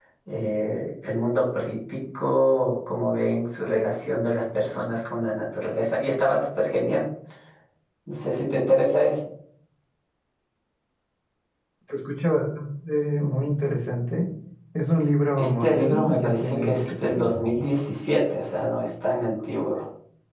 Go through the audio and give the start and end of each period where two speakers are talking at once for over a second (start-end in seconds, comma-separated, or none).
15.4-17.3